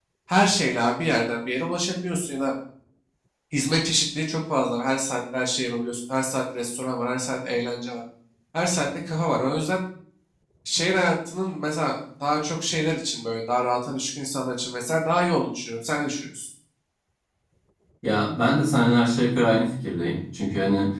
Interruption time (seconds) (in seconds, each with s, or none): none